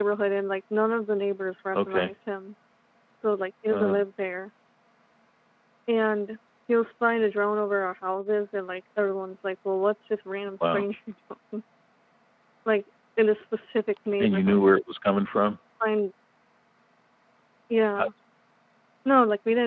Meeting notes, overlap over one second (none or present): none